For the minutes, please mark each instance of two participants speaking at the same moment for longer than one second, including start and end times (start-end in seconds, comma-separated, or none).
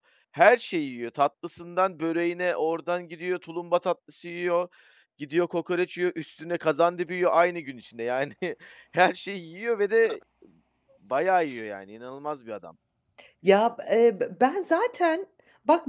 none